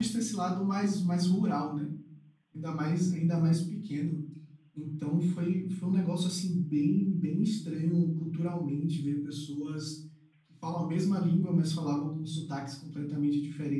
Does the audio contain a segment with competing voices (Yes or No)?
No